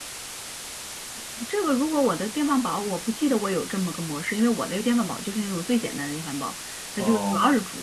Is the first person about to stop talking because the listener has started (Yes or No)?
No